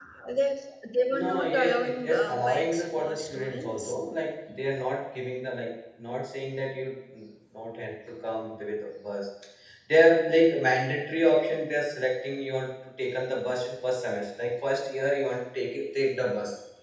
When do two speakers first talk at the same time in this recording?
1.1 s

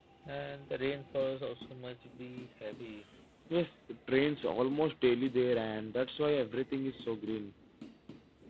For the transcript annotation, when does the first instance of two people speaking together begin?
none

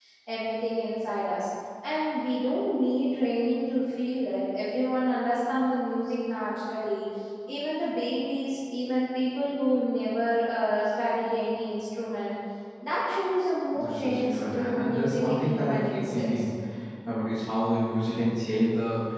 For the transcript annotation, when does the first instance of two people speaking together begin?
13.7 s

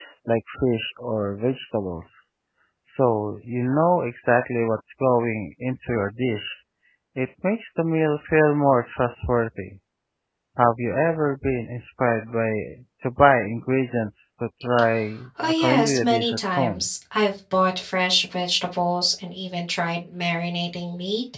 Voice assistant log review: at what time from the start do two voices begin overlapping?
15.4 s

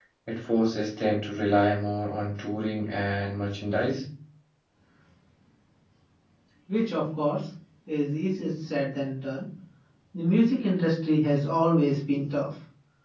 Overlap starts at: none

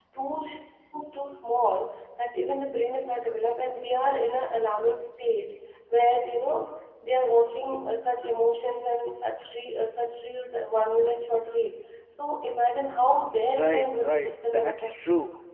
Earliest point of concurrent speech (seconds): 13.6 s

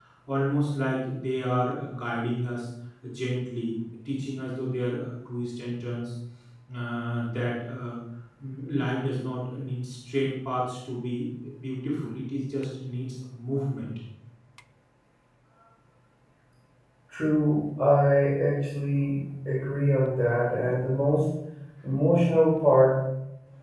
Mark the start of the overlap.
none

